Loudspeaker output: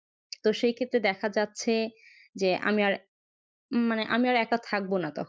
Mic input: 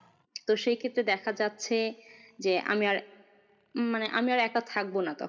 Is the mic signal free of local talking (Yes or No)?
Yes